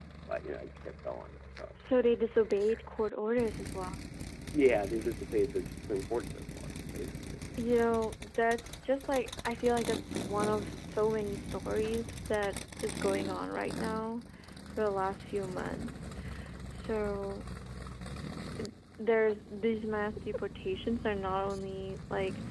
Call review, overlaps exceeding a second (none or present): none